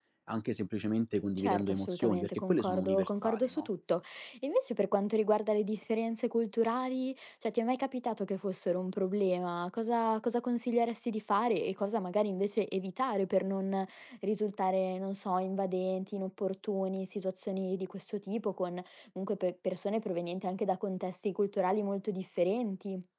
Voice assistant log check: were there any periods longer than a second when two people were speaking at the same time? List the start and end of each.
1.4-3.7

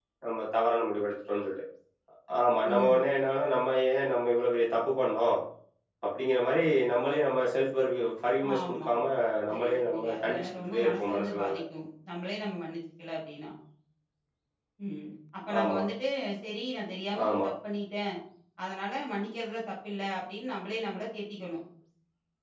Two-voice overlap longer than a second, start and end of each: 9.5-11.5

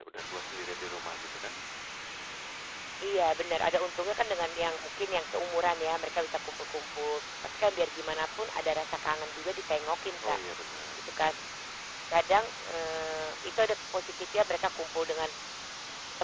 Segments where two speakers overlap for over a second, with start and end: none

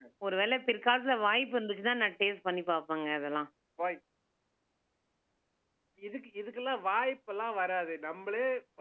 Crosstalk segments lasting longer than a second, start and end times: none

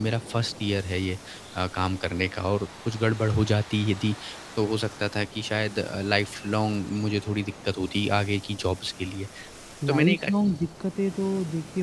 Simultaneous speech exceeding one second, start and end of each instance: none

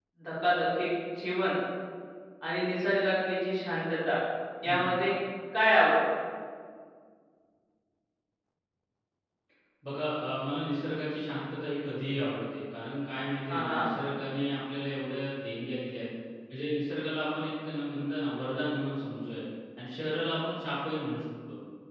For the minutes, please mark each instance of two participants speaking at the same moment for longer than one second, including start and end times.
none

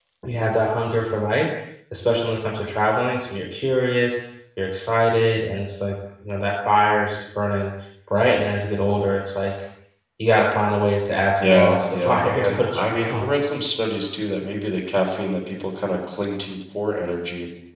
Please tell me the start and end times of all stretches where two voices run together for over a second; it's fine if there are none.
11.4-13.3

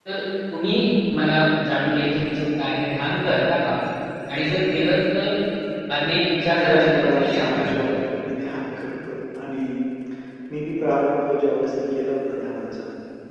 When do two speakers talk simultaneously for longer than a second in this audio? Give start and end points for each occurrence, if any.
6.5-8.0

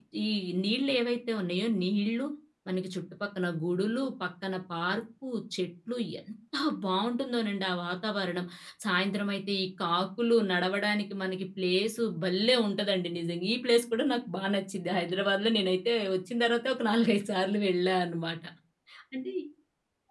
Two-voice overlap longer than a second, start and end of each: none

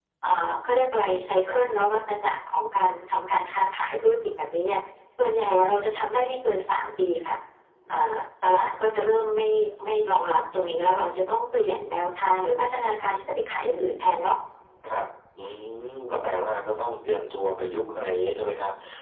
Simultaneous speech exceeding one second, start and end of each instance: none

